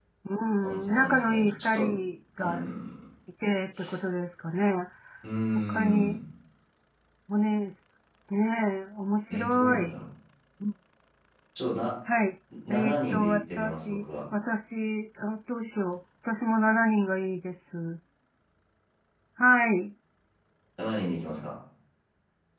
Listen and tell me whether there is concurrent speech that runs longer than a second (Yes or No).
Yes